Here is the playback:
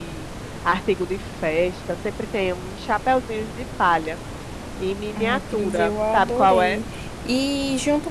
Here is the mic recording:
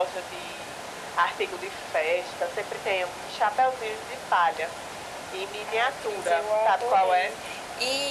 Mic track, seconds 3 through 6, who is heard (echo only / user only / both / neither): echo only